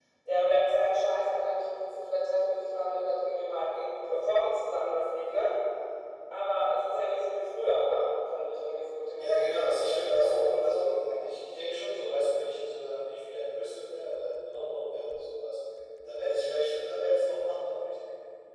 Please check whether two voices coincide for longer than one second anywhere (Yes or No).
Yes